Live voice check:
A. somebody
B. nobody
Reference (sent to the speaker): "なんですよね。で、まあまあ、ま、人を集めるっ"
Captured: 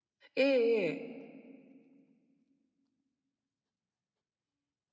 A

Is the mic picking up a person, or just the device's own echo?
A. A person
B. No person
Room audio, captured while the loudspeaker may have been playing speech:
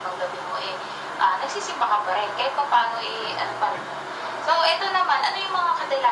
B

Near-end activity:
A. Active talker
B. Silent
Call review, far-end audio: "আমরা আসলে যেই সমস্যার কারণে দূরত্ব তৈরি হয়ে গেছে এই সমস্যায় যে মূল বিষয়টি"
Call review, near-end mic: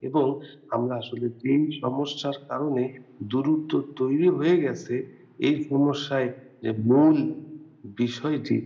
B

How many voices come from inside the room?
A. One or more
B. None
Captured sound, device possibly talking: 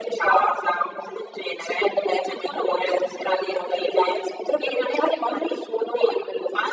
B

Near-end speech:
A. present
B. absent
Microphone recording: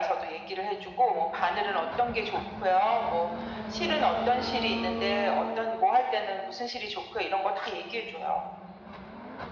B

